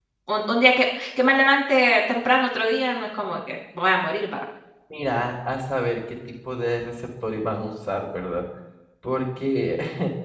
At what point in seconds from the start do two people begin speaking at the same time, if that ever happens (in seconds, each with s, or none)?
none